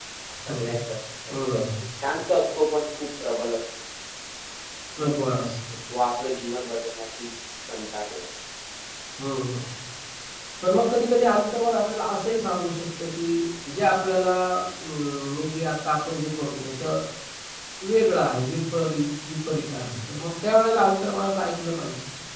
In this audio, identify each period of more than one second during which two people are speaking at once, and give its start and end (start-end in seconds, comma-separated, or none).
none